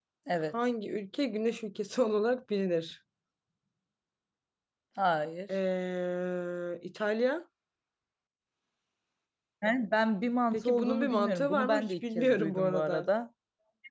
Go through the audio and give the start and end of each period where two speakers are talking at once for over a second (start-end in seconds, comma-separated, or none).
10.5-13.1